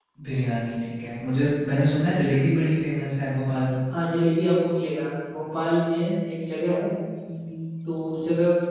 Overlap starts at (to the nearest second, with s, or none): none